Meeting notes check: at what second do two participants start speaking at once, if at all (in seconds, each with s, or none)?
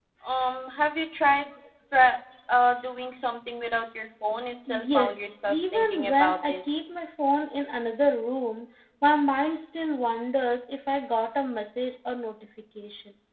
4.7 s